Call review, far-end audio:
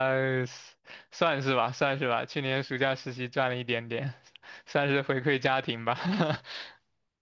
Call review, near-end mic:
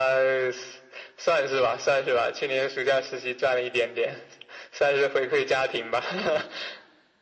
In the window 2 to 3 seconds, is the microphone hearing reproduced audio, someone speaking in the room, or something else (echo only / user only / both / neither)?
echo only